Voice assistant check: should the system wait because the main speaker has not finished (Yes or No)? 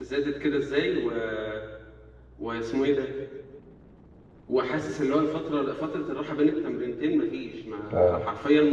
Yes